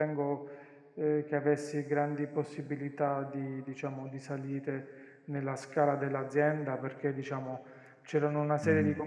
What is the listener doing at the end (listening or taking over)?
listening